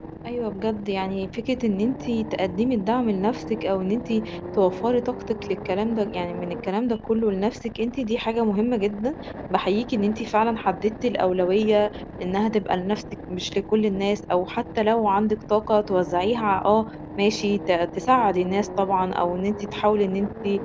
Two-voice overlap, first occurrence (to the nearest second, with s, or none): none